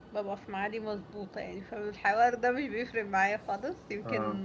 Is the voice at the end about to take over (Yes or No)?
No